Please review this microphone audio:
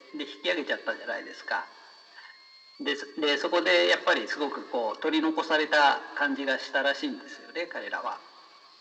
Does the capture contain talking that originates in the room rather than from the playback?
No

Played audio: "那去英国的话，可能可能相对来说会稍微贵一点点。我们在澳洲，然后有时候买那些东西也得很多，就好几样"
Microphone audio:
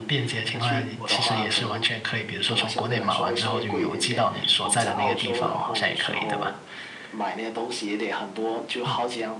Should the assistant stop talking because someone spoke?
Yes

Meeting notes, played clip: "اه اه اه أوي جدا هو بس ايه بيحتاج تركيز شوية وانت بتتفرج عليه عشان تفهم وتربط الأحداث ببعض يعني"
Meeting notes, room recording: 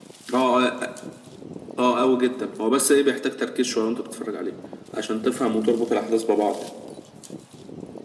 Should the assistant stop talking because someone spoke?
No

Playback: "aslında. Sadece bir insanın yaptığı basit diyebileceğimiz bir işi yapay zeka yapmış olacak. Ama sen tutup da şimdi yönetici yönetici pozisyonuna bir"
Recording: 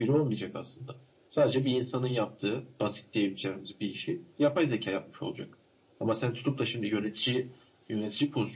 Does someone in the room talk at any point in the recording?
No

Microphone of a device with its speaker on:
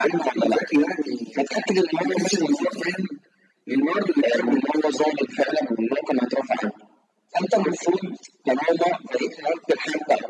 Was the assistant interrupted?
No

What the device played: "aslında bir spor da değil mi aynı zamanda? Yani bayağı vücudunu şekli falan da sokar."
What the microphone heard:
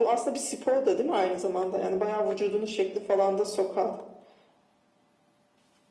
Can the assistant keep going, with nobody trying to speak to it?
Yes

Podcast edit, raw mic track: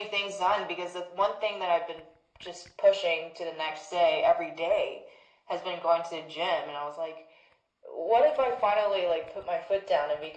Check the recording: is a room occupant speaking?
No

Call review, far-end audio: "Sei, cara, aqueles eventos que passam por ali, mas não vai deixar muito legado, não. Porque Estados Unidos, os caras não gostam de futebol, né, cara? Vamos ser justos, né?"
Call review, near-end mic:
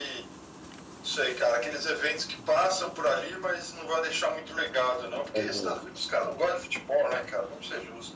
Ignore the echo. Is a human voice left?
Yes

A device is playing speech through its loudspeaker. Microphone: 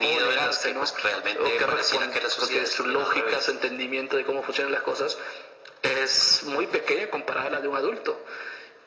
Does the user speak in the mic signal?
No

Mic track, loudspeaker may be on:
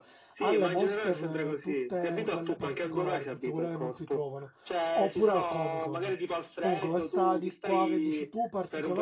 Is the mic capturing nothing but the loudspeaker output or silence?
No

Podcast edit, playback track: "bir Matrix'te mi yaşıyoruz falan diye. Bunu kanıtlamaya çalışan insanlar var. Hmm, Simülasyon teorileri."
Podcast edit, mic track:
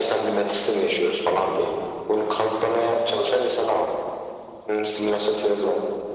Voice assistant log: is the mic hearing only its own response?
Yes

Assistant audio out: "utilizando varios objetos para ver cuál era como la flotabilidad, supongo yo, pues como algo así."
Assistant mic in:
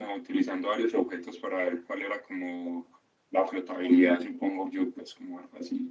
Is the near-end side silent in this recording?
Yes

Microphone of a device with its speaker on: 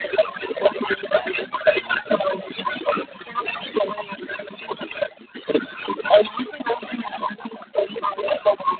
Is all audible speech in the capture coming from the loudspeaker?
Yes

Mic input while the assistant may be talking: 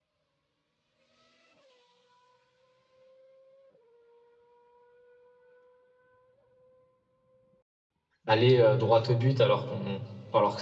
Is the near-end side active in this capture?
Yes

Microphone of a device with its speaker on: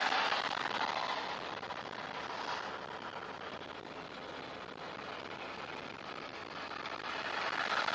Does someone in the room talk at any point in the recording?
No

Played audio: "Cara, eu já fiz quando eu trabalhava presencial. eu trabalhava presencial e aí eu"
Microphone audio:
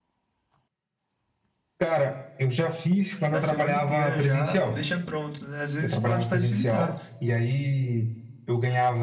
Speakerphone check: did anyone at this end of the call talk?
Yes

